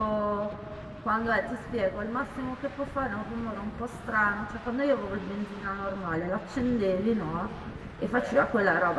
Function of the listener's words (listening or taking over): listening